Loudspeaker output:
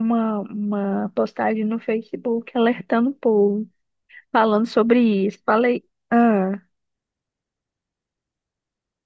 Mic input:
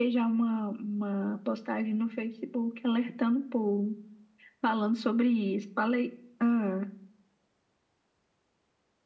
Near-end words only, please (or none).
none